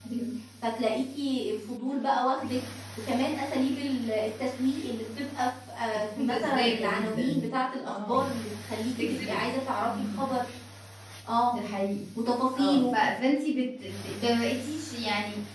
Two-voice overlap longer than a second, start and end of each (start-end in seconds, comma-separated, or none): 5.9-7.4